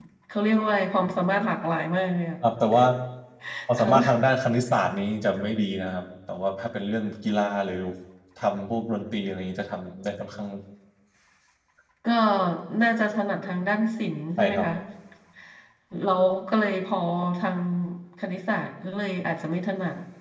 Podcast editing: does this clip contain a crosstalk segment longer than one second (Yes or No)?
No